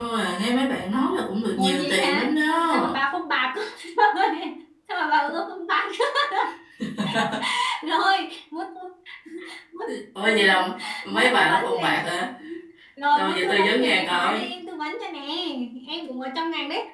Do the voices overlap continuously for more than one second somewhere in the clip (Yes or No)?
Yes